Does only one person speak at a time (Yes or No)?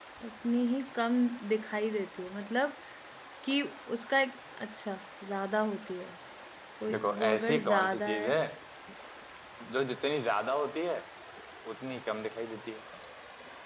No